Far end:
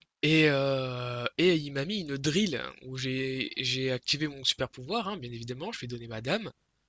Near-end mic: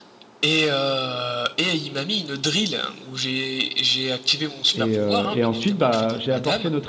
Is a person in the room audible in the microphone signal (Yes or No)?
Yes